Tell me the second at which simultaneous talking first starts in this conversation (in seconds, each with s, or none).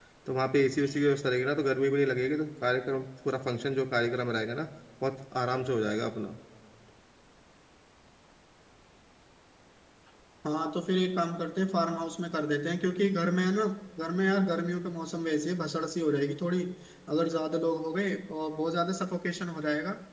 none